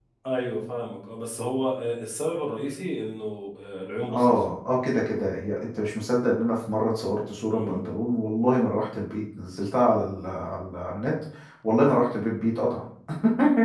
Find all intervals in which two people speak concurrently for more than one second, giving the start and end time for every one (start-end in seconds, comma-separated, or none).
none